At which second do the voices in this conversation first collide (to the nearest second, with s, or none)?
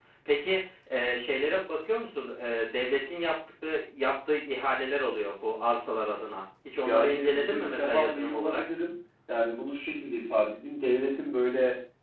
7 s